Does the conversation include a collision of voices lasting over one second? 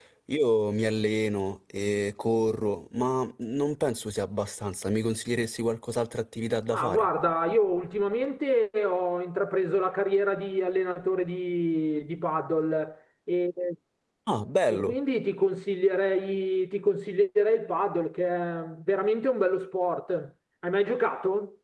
No

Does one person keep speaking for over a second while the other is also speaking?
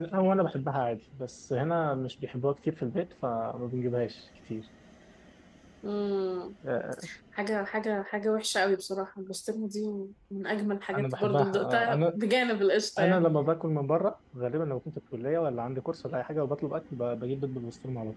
Yes, from 11.0 s

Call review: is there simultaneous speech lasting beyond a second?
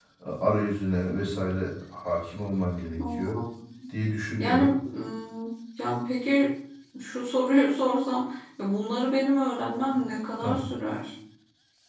No

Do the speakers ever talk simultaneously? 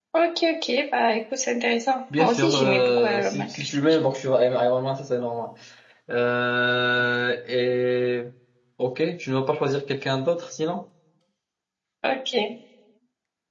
Yes, from 2.1 s

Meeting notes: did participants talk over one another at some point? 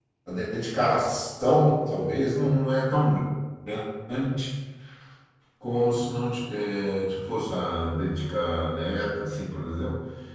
No

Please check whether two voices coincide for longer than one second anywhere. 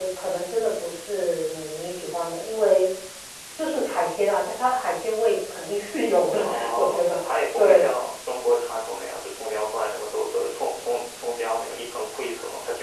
Yes, from 6.4 s

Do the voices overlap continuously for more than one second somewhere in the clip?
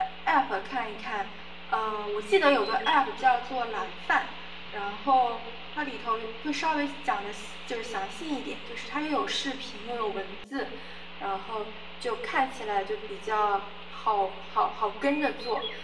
No

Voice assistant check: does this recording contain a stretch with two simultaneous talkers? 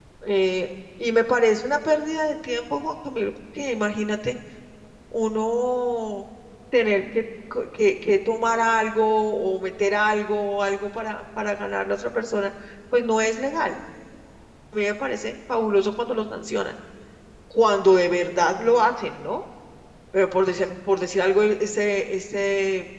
No

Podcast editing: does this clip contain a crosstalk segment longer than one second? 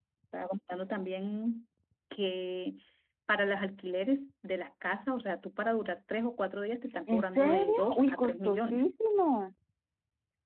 Yes, from 7.1 s

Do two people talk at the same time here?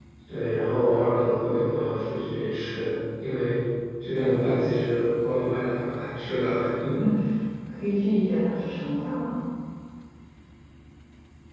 No

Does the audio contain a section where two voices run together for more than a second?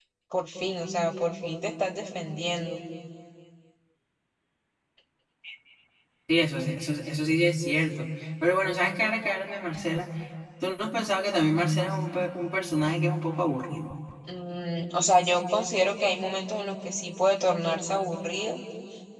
No

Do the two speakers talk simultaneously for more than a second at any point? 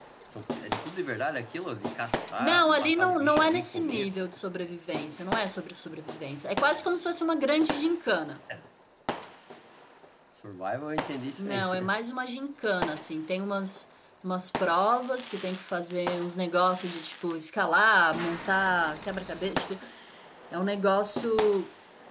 Yes, from 2.4 s

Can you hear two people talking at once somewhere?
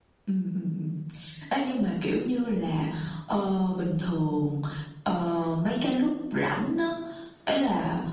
No

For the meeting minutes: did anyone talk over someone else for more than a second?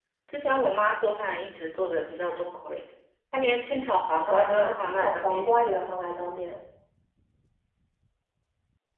Yes, from 4.3 s

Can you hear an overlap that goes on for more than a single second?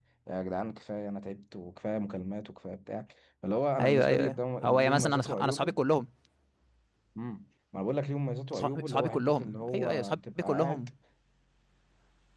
Yes, from 3.8 s

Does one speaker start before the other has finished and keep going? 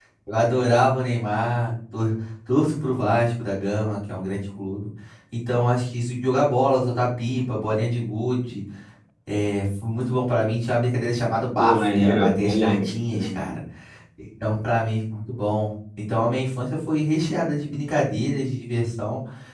Yes, from 11.6 s

